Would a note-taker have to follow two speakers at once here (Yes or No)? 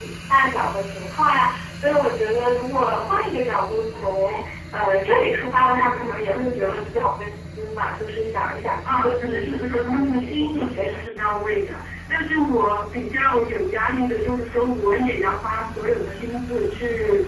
Yes